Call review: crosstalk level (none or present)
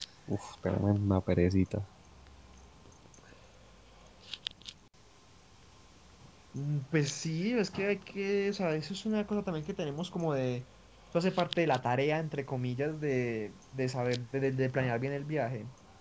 none